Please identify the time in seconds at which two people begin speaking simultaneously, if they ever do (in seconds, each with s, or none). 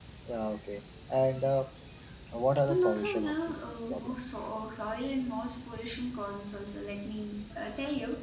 2.7 s